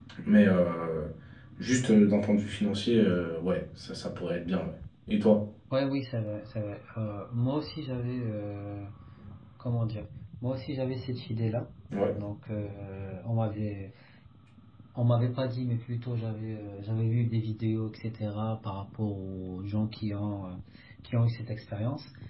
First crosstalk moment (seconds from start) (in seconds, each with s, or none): none